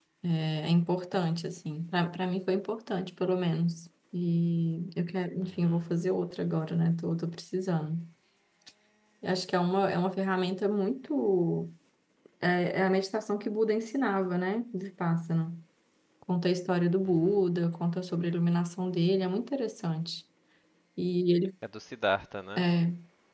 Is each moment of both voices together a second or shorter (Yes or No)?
Yes